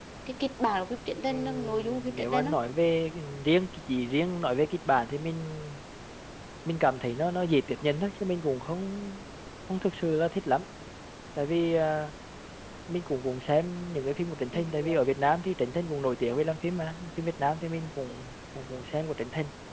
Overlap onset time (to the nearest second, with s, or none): 1 s